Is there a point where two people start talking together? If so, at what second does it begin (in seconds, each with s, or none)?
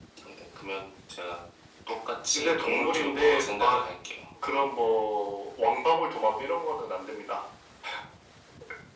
2.3 s